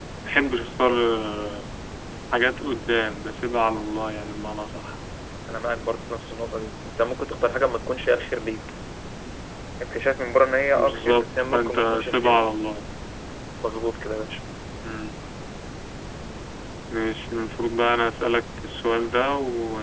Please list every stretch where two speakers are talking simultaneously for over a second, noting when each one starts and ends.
10.7-12.5

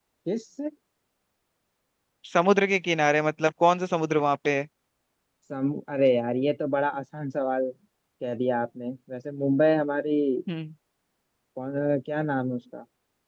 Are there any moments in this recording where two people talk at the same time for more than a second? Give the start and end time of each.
none

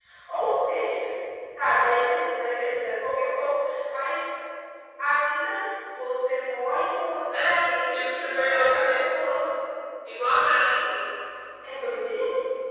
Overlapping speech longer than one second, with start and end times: 7.3-9.1

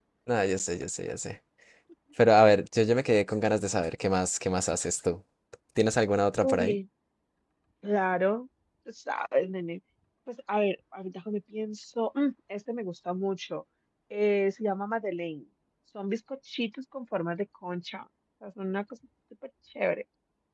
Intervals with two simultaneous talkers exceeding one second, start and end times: none

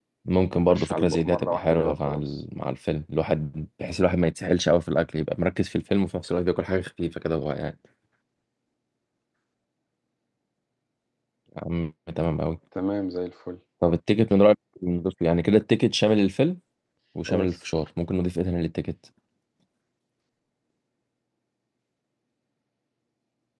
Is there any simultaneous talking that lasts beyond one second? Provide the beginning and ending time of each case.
0.7-2.4

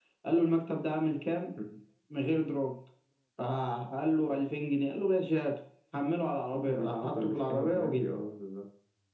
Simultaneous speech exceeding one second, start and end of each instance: 6.5-8.0

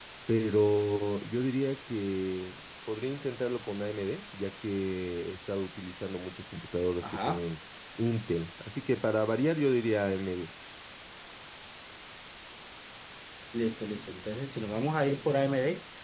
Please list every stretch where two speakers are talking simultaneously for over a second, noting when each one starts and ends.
none

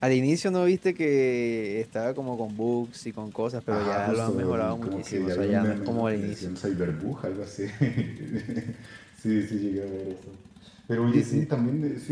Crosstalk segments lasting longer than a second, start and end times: 3.7-6.5

